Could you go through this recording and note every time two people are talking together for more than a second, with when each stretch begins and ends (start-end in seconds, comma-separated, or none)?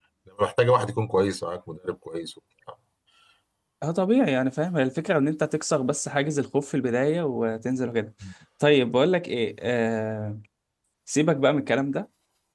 none